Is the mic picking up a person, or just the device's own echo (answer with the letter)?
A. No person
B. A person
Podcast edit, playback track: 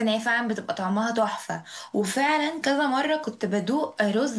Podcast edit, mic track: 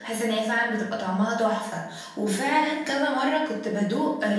A